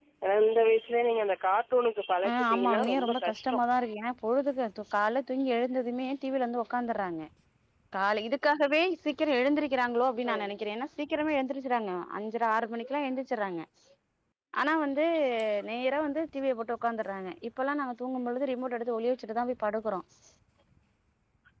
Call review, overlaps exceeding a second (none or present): present